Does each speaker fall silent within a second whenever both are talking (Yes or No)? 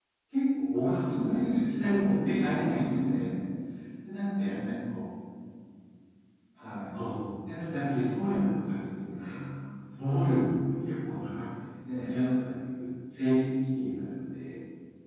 No